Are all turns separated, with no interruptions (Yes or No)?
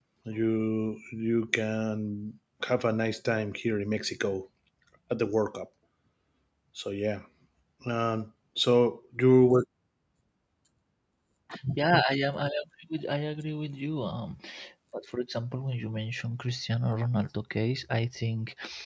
Yes